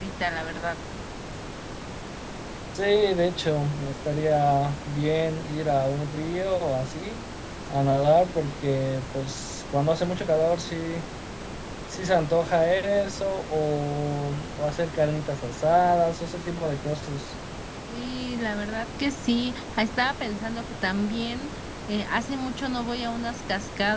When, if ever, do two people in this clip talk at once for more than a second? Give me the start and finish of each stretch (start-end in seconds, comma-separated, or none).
none